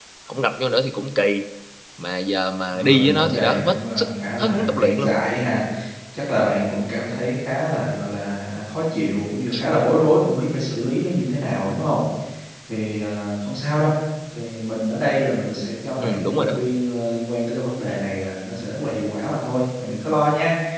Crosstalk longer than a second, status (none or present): present